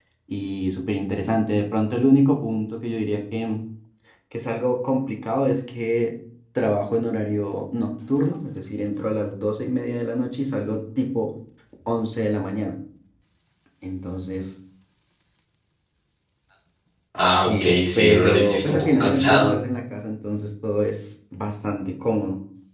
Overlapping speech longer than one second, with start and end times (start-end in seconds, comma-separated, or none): 17.1-19.5